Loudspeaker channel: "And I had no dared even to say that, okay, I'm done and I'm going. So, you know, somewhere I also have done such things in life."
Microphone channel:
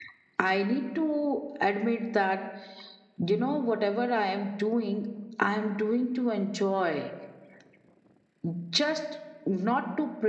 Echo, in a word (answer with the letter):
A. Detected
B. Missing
B